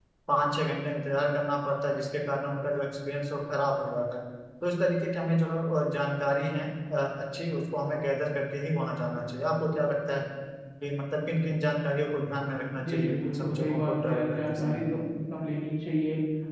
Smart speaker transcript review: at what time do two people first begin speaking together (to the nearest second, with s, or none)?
13 s